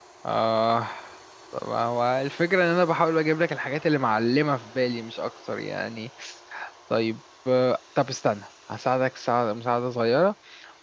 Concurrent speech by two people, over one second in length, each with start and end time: none

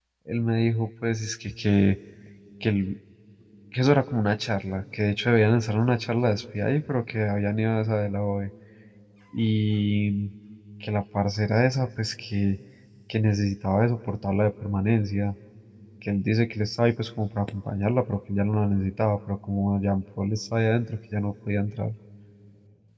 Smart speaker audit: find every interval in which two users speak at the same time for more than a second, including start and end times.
none

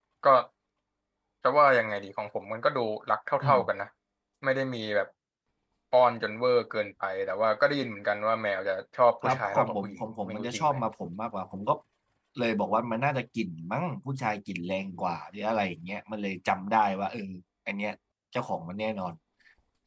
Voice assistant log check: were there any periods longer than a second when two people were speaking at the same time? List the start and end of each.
9.2-10.7

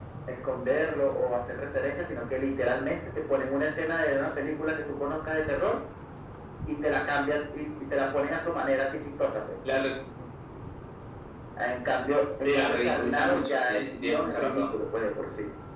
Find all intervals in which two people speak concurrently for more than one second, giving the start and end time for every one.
12.4-14.7

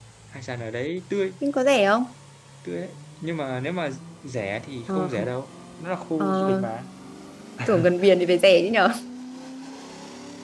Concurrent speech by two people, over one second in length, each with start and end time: none

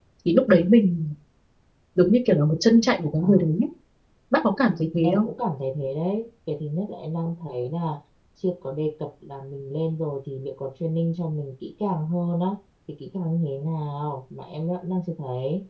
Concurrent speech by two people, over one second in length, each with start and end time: none

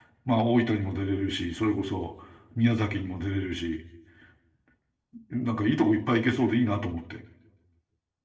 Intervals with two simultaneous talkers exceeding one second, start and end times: none

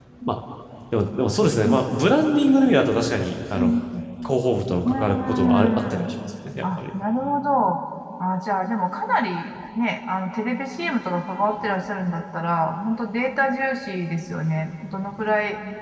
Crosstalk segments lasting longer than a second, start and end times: 4.8-6.1

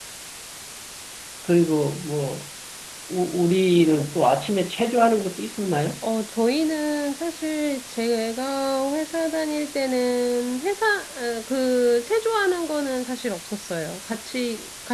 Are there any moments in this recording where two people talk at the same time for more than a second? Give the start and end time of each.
none

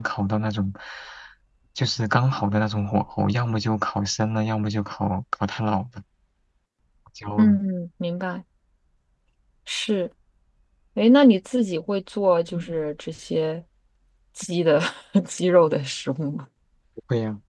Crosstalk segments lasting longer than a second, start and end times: none

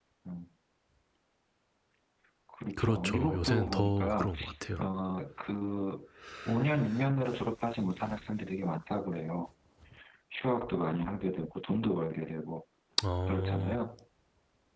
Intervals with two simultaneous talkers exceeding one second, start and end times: 2.8-4.3

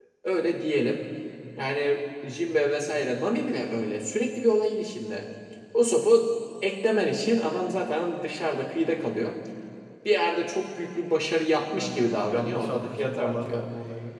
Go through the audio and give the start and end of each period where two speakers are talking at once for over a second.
11.8-13.6

